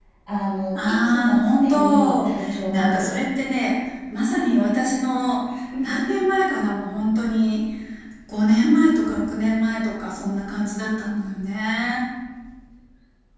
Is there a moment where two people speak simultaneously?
Yes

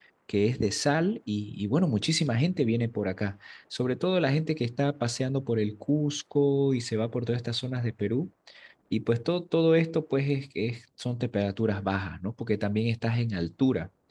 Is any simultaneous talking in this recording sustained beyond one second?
No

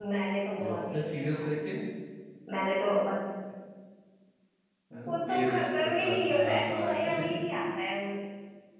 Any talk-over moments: Yes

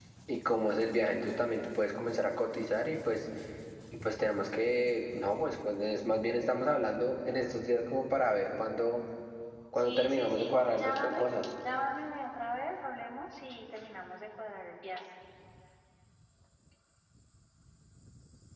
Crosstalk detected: Yes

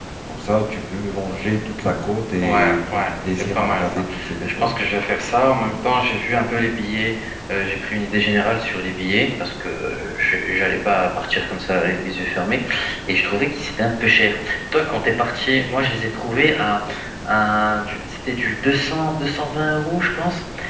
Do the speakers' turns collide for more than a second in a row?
Yes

